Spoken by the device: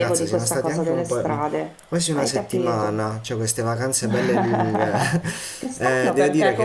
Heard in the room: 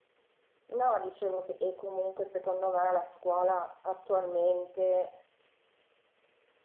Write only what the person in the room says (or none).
No, dicevo che e comunque secondo me la scuola attualmente